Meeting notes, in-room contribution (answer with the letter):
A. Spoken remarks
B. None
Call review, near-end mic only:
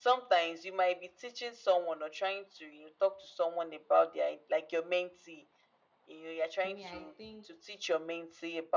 A